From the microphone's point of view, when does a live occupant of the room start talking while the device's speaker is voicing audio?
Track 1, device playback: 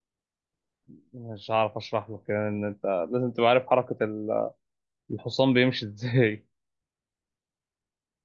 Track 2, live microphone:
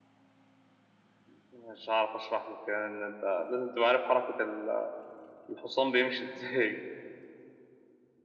none

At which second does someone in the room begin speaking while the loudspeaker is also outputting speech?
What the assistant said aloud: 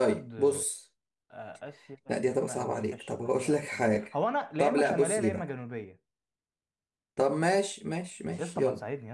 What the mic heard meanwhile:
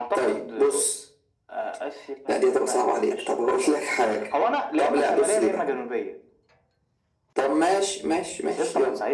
none

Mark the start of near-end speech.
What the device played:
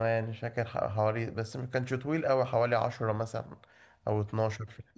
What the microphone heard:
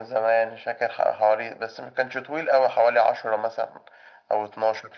none

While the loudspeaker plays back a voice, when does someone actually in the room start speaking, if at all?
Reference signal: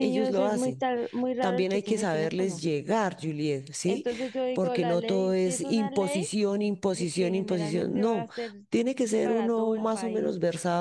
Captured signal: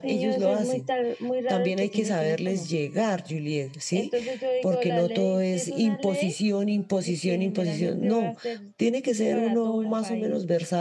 none

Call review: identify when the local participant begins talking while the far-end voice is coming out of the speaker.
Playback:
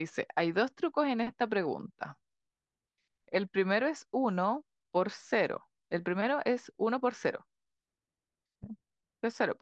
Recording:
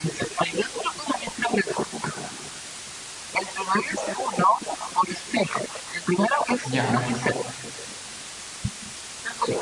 6.6 s

